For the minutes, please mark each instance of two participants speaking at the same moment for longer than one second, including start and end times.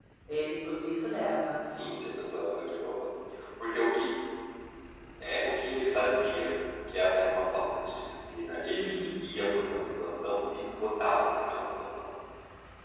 none

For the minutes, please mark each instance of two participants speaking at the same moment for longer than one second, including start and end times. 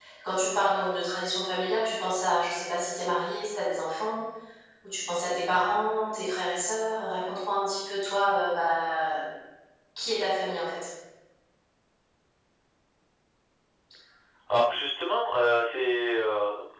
none

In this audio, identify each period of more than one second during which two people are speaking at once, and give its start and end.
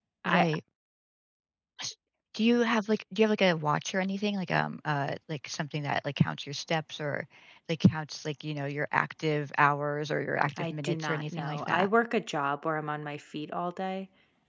10.6-11.9

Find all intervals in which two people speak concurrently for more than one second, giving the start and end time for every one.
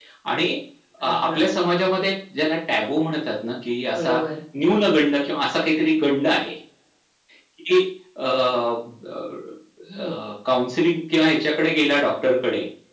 none

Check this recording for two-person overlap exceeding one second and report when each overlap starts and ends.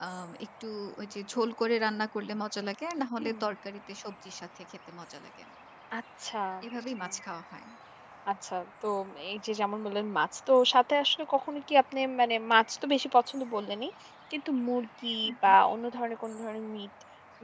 none

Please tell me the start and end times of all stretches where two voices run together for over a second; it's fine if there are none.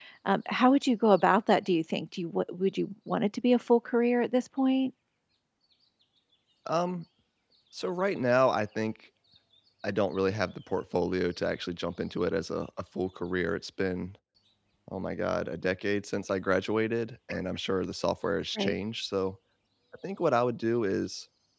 none

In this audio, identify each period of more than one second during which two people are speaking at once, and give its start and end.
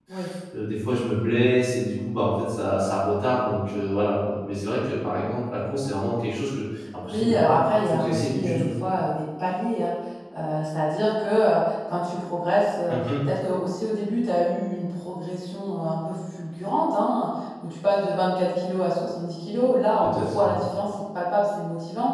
7.1-8.7

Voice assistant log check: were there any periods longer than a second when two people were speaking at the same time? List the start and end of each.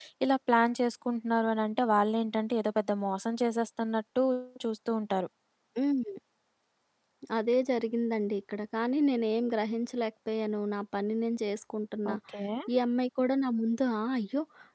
none

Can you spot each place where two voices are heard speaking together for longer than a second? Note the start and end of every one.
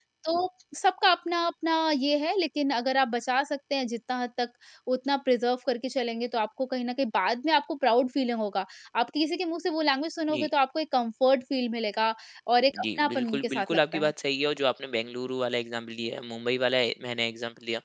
12.8-14.1

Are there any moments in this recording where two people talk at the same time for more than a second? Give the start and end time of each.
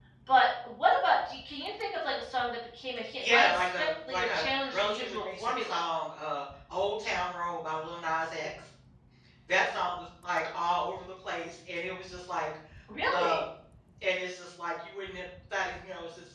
3.2-5.8

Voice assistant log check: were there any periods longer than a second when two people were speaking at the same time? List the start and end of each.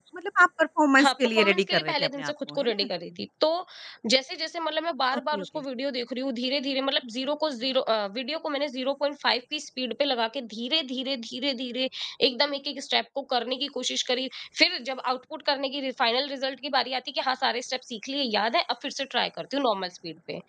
1.0-2.9

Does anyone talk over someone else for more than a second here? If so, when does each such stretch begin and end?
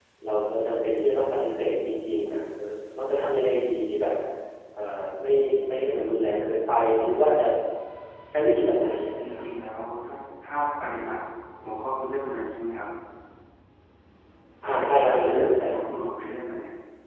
none

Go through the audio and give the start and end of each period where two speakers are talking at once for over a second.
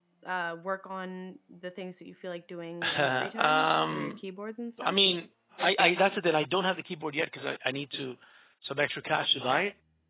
3.0-4.2

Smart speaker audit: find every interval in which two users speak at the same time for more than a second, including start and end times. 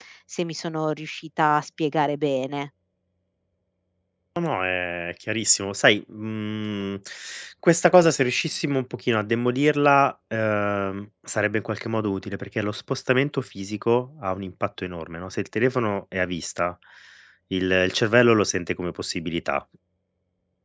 none

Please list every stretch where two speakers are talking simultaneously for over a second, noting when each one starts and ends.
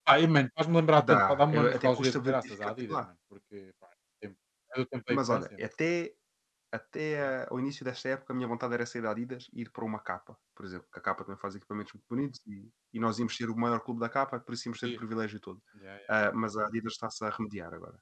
1.0-3.0

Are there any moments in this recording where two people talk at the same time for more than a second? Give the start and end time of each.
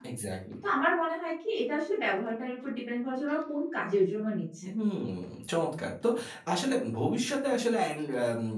none

